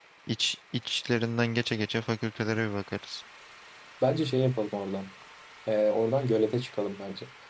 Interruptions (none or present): none